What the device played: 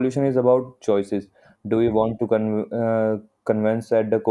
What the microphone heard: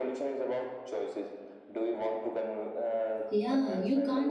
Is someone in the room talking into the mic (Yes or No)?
Yes